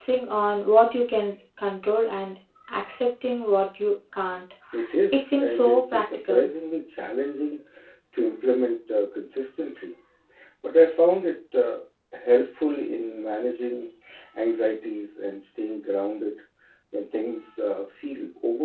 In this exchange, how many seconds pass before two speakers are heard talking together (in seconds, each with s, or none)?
5.1 s